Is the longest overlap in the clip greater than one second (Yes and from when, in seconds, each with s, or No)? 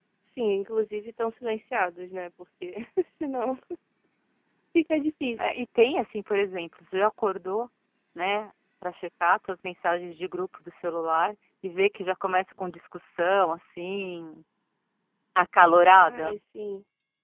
No